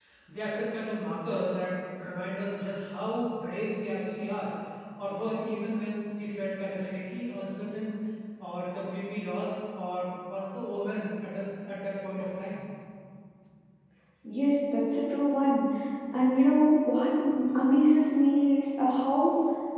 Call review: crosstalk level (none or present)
none